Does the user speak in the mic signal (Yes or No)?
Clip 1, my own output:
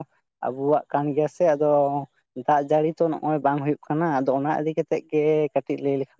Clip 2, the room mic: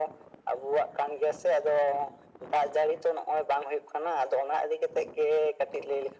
No